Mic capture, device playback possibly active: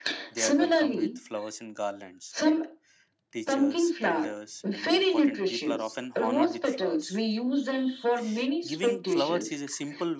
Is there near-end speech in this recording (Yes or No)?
Yes